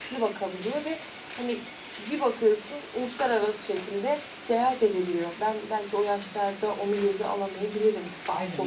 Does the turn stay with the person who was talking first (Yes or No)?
Yes